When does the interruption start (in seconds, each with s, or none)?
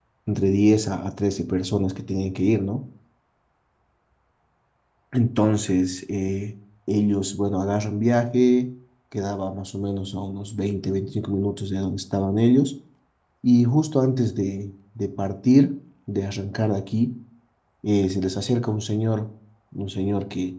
none